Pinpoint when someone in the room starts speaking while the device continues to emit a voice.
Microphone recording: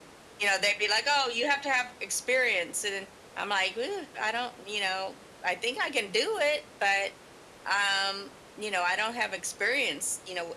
none

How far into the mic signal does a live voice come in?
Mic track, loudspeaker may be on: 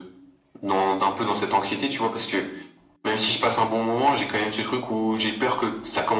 none

